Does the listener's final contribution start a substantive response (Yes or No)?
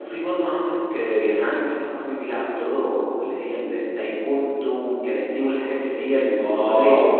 Yes